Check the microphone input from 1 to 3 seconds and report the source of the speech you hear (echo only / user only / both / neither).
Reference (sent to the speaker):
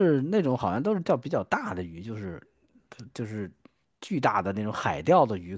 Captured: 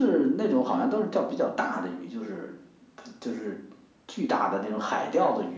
echo only